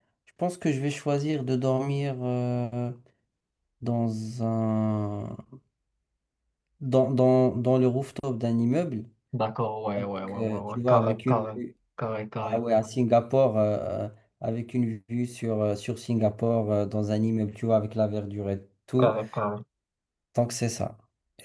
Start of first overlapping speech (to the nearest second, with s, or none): 10 s